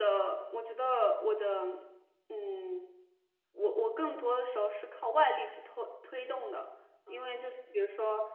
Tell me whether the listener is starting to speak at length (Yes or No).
No